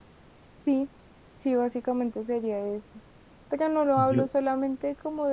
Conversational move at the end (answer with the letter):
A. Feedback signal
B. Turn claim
A